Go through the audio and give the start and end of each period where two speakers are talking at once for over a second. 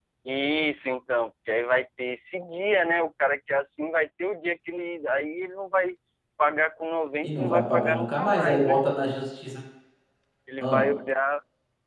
7.2-8.8

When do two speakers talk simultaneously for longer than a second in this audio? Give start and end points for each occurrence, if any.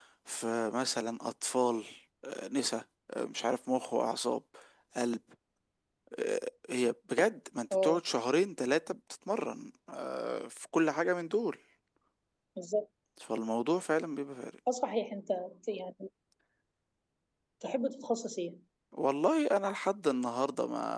none

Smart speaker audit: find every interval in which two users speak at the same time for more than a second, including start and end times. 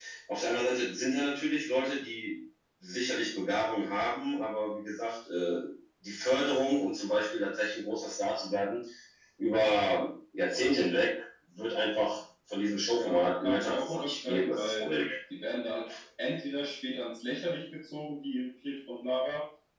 12.9-14.9

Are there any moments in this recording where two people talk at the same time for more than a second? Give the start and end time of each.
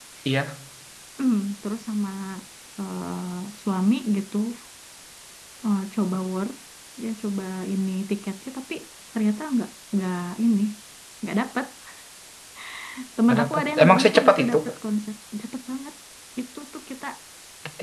13.3-14.6

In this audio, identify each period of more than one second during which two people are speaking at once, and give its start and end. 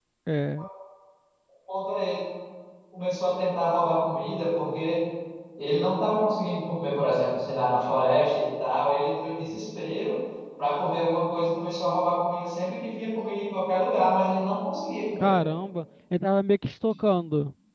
none

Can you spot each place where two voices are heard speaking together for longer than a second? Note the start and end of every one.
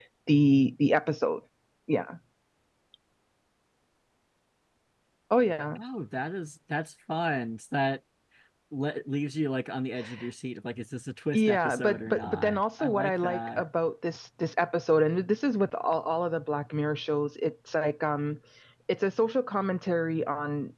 11.3-13.7

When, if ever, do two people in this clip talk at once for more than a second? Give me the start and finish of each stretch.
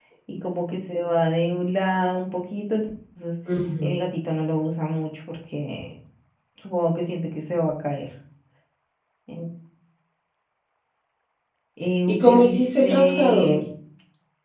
12.1-13.6

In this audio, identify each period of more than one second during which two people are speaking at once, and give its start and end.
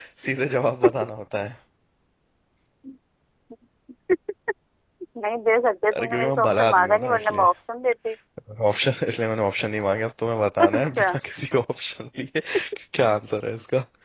6.0-7.5

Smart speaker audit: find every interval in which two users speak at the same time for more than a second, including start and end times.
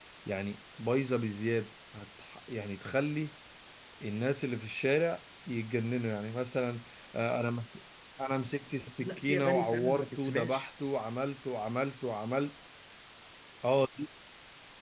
9.0-10.7

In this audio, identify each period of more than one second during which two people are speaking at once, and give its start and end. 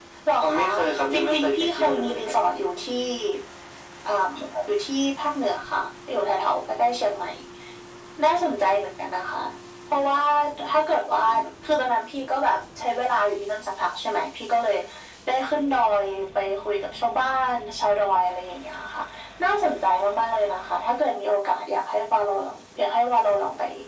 1.1-2.4

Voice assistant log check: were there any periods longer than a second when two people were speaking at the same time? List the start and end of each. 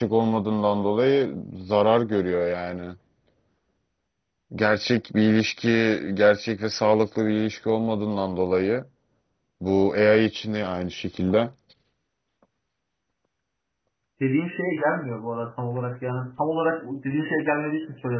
none

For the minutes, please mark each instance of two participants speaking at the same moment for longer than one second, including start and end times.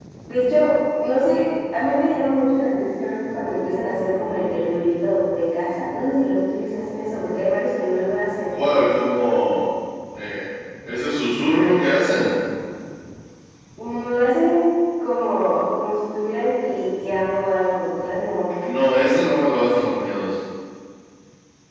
none

